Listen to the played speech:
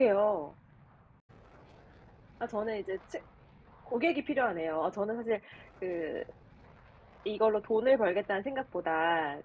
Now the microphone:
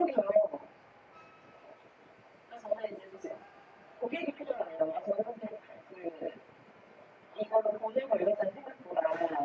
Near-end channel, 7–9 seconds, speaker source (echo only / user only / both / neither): echo only